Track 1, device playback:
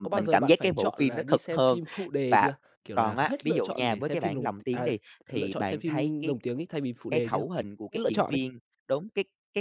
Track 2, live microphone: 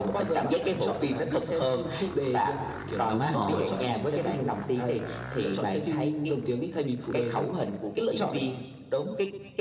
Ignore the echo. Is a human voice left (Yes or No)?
Yes